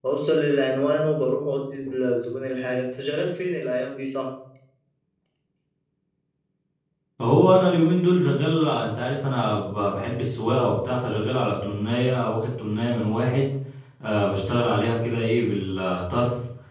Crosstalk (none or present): none